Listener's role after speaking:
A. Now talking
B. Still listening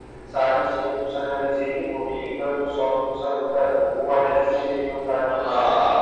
A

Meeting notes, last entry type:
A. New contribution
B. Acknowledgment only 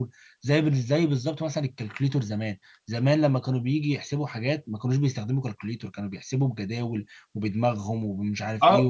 A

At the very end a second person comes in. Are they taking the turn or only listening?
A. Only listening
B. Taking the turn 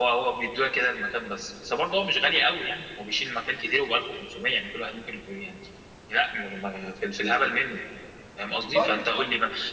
A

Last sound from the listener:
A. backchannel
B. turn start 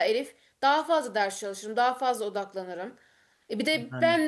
A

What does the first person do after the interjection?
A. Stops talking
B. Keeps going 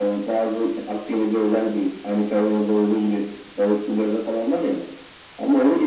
B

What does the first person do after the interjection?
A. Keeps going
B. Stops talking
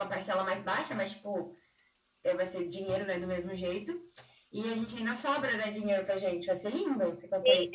B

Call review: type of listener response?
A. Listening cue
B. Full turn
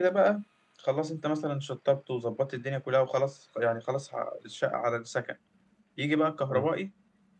A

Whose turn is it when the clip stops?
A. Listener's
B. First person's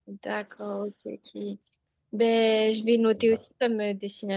B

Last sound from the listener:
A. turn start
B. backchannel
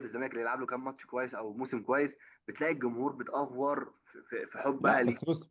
A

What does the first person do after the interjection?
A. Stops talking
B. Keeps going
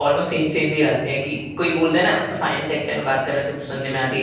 B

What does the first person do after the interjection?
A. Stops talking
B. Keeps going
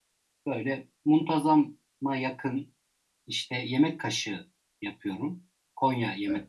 B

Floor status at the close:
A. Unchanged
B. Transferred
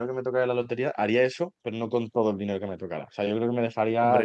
A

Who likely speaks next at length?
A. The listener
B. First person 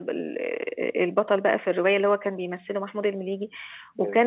B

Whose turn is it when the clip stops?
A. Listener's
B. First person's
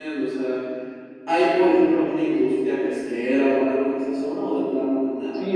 A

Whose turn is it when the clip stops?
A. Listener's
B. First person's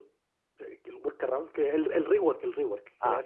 B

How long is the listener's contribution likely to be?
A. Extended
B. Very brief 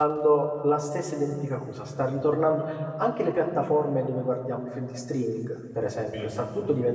B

